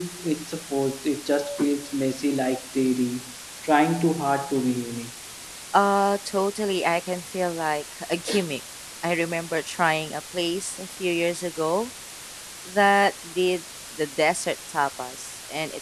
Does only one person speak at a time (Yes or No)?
Yes